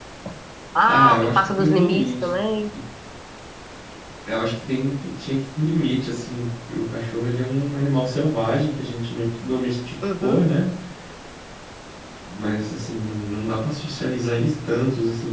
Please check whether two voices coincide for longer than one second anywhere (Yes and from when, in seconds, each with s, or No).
Yes, from 0.9 s